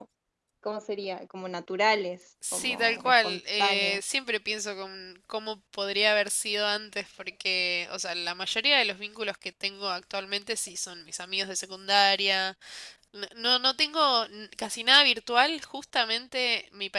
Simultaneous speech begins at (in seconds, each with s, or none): 2.4 s